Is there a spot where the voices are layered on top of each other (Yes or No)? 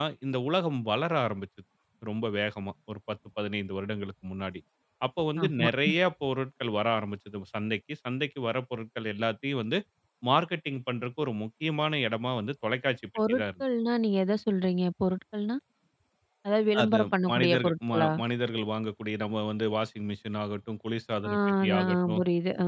Yes